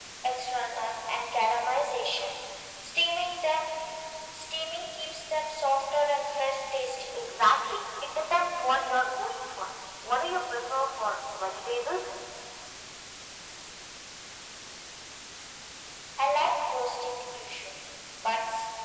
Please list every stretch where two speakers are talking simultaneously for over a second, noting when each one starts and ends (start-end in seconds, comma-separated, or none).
none